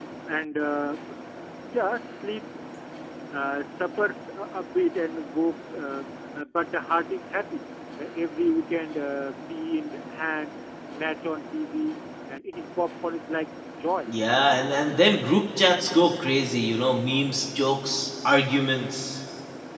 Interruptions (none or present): none